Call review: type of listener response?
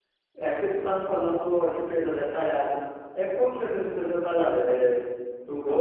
listening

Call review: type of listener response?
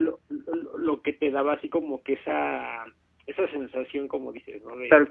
listening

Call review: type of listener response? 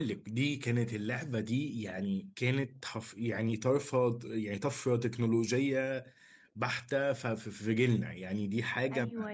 taking over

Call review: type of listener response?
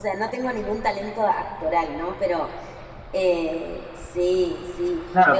taking over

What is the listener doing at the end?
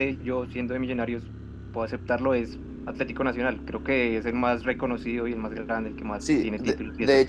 taking over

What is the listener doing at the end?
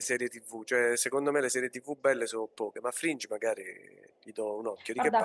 taking over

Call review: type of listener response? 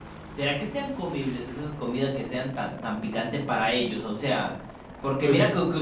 listening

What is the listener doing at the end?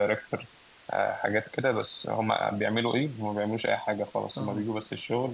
listening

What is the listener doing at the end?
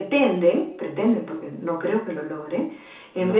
listening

